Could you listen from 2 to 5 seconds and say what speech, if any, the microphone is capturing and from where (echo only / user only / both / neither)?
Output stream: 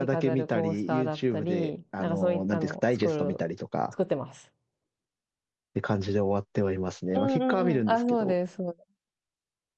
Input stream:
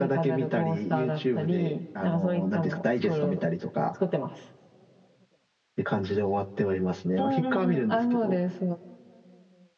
echo only